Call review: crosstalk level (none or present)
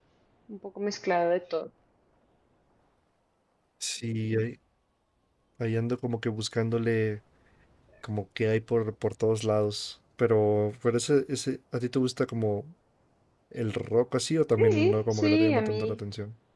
present